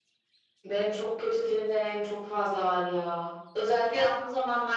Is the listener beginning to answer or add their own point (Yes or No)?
No